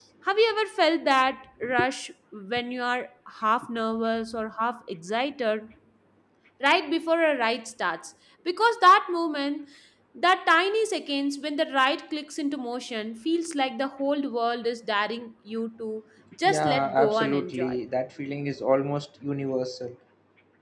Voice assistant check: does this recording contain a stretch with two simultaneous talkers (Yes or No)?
Yes